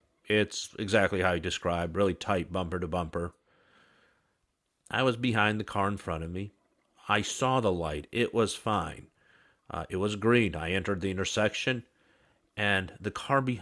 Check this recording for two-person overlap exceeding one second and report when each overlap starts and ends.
none

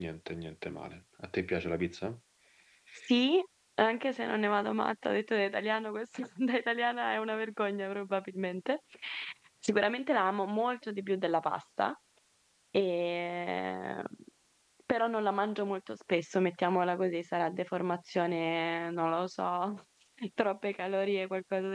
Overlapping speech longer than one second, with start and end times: none

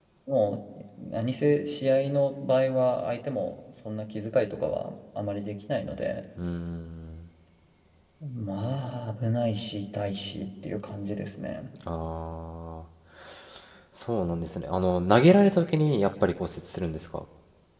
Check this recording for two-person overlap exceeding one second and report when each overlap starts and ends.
none

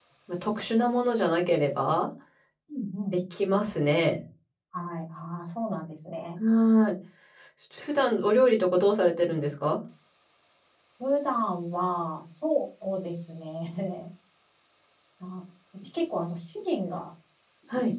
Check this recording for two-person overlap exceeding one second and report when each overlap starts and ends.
none

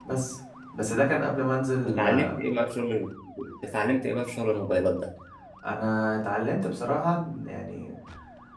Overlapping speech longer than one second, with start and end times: none

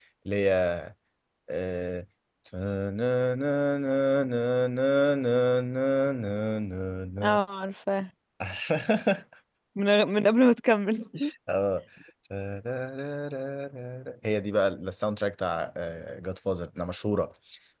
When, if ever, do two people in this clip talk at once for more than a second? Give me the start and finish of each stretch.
none

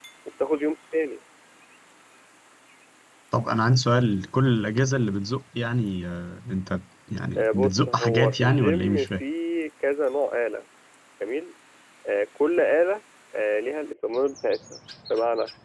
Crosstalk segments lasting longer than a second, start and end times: 7.4-9.2

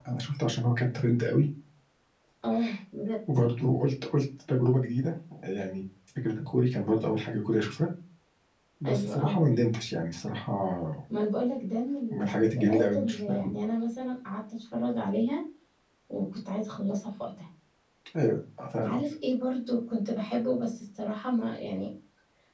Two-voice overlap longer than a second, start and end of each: 12.1-13.4

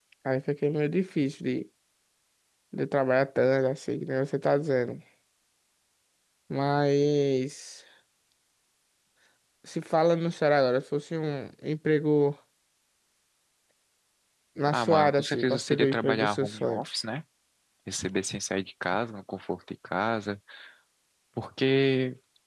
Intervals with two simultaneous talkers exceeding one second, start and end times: 14.7-16.8

